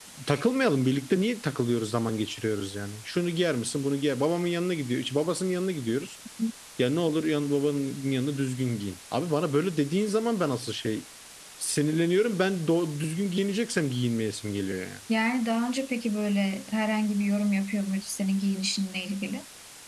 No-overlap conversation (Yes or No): Yes